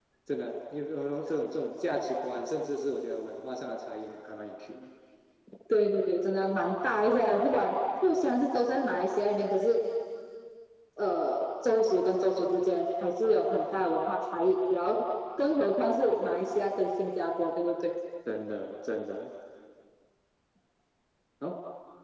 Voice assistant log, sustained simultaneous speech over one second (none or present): none